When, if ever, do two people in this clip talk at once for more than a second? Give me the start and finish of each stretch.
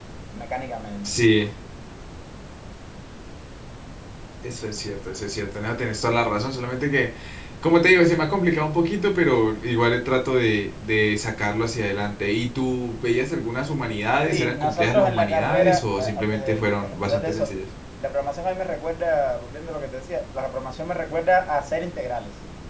14.3-17.5

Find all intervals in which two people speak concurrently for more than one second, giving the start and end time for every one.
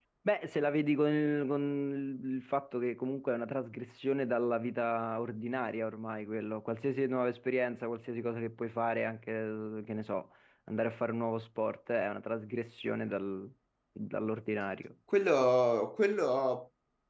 none

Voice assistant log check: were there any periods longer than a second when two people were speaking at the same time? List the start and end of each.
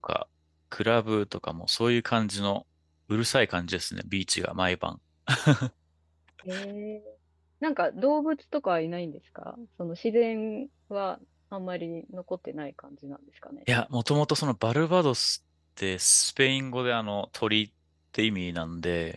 none

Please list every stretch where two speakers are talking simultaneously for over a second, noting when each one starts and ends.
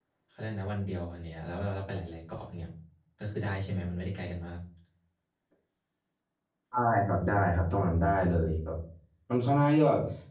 none

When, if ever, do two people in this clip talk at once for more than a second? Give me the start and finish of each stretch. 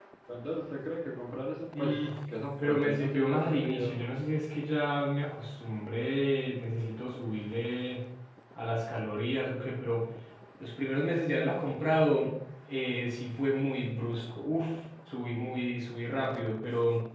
2.6-4.1

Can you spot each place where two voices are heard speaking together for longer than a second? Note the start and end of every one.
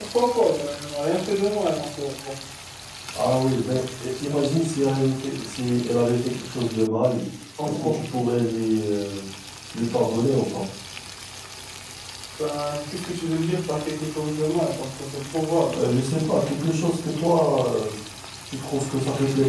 none

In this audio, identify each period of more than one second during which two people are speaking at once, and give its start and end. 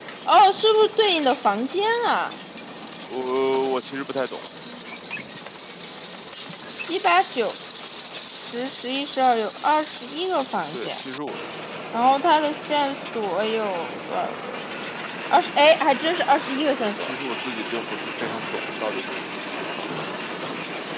none

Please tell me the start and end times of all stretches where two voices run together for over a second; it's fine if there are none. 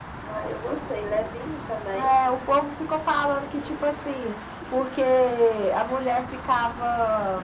none

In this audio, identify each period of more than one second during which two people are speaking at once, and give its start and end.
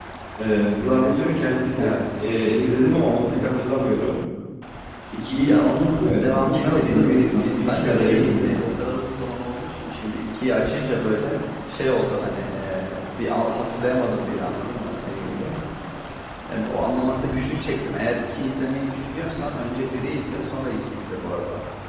6.0-8.5

